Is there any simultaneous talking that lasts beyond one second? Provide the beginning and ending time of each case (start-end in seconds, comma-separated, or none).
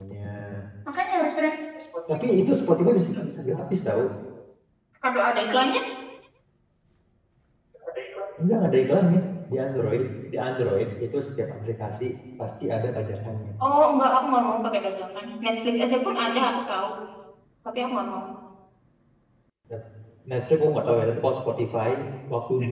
none